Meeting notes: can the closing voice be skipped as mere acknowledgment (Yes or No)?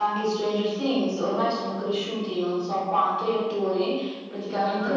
Yes